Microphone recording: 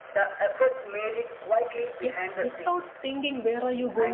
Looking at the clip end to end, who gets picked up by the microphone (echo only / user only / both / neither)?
both